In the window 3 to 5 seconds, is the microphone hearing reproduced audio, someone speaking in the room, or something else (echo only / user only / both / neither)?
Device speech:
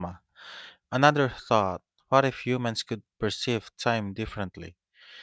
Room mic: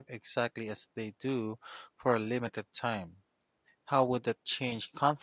user only